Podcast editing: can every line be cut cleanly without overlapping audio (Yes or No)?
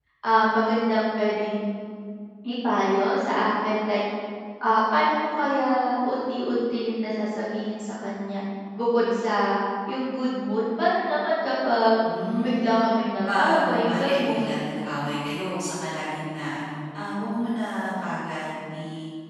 No